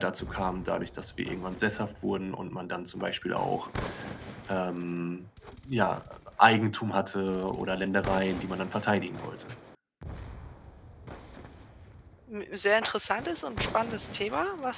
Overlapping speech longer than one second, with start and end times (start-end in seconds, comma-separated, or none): none